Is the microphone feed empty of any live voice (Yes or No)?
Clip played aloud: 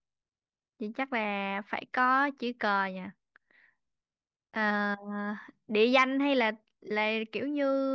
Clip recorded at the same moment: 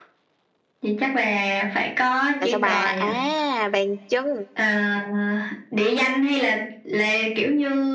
No